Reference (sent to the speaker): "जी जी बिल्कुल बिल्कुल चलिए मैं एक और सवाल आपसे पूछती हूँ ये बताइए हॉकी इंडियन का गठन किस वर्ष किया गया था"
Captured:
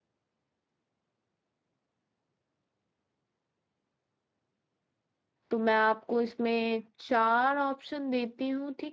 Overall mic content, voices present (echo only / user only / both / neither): user only